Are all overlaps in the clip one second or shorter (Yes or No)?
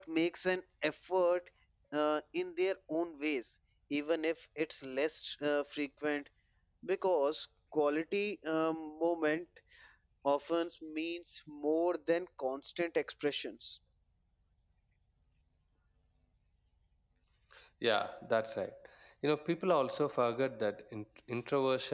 Yes